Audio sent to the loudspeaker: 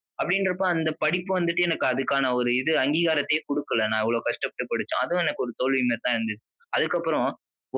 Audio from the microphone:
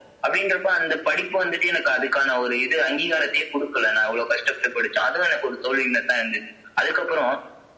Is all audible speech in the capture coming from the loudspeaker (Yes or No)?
Yes